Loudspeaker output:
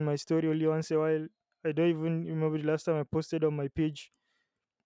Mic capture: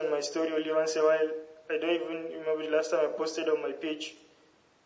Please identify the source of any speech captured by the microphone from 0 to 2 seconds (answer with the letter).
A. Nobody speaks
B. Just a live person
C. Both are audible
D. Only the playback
D